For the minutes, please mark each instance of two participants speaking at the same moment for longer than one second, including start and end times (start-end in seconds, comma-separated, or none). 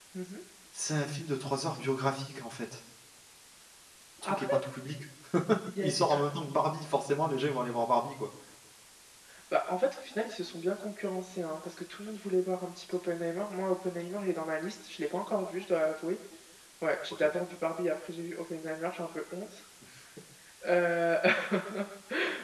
none